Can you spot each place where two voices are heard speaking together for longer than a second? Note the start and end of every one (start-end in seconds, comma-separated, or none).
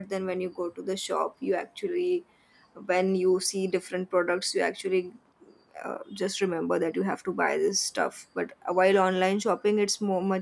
none